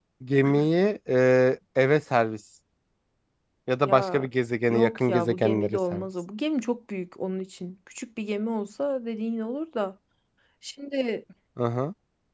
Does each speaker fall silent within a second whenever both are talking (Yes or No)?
No